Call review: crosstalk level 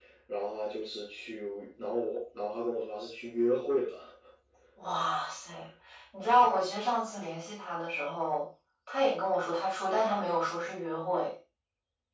none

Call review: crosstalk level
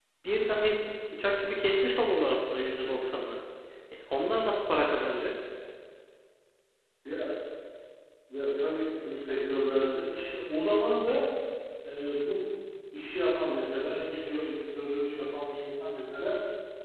none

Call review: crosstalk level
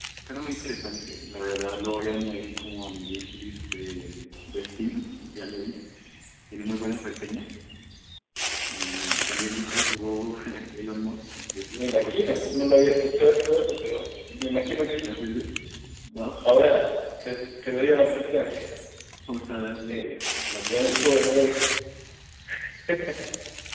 present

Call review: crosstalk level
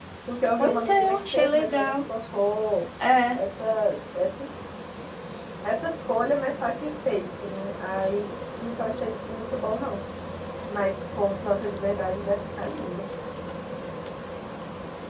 present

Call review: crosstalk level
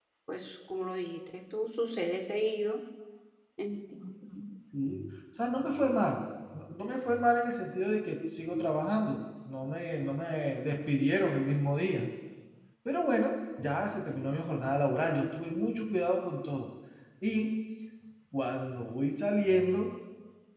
none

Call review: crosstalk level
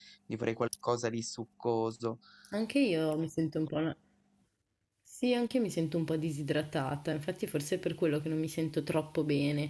none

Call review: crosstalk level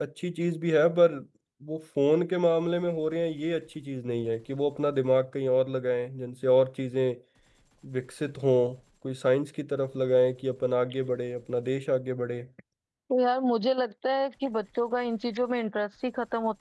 none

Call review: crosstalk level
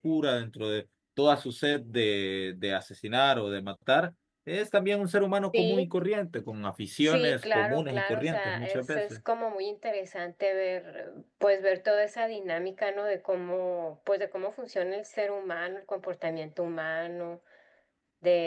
present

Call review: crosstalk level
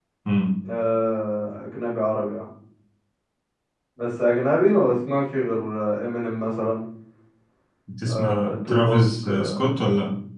present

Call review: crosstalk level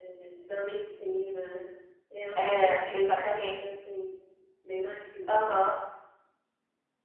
present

